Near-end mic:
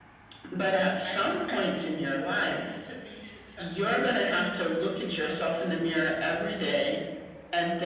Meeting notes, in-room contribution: present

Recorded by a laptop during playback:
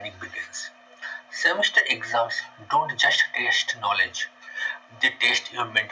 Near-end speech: none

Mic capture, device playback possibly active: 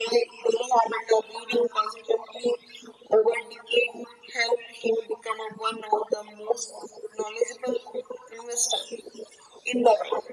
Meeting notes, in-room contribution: none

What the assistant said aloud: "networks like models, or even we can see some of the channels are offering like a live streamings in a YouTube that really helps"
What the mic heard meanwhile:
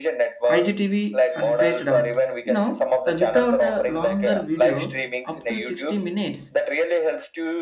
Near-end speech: present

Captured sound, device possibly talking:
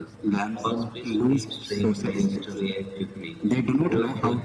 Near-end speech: none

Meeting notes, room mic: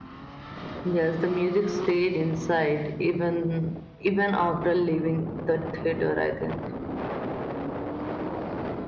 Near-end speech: none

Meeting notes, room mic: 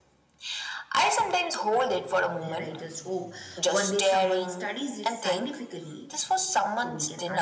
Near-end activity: present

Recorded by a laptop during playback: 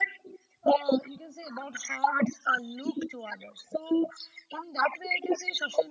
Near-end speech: none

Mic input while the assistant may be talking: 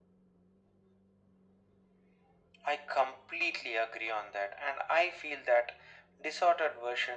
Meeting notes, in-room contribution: none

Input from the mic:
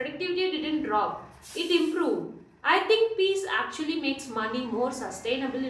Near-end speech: present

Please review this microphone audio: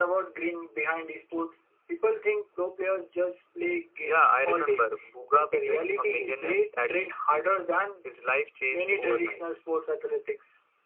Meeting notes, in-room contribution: none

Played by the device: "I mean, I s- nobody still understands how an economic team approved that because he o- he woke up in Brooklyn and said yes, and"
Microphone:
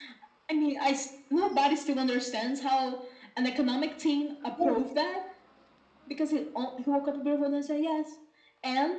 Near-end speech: present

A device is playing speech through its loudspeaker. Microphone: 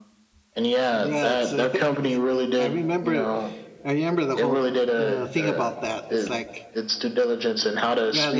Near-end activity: present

